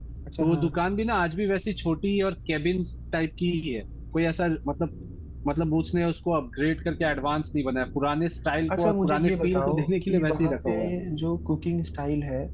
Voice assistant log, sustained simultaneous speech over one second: present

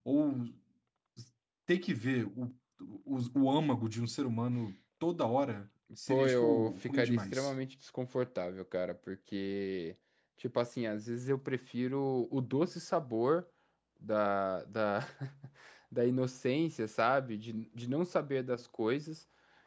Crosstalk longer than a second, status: present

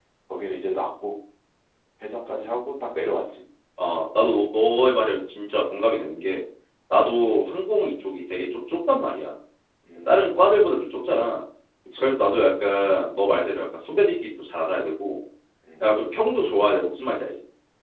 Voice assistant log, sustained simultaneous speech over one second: none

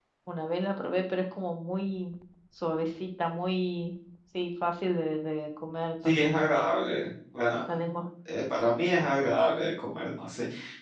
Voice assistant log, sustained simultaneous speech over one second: none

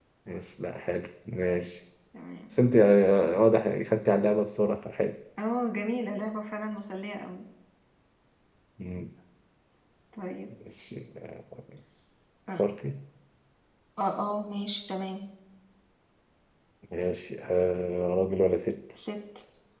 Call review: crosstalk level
none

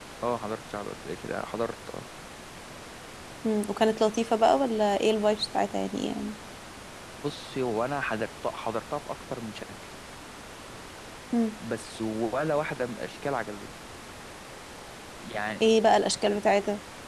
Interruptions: none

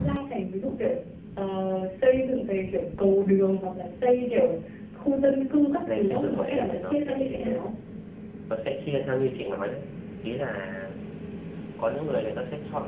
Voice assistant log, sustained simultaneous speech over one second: present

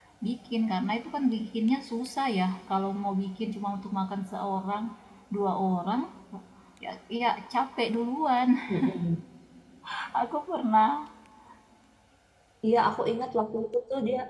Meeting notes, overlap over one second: none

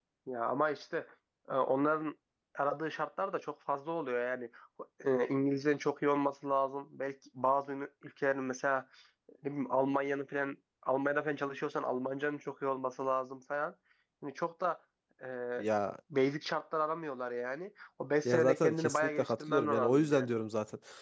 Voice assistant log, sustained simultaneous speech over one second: present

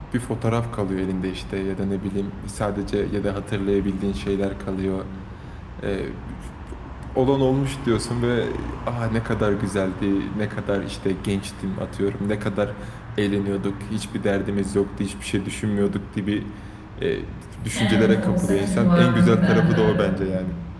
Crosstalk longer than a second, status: present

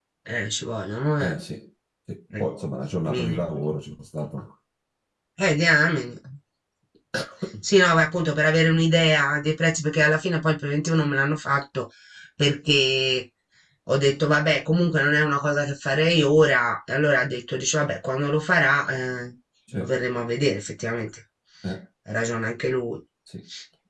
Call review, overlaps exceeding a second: none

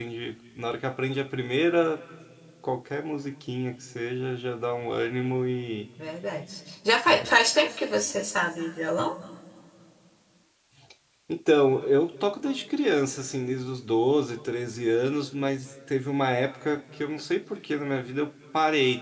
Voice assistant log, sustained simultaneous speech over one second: none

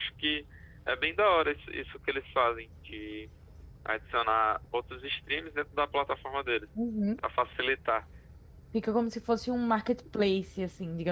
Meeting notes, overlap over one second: none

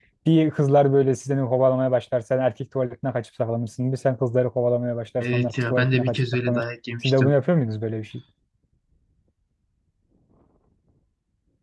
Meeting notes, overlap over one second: present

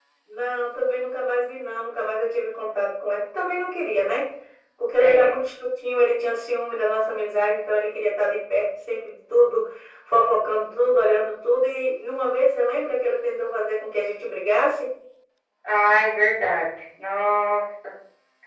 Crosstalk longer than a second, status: none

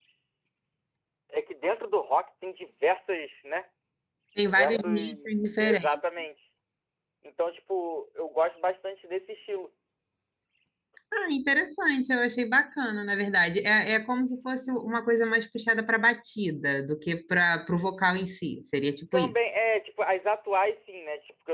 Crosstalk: present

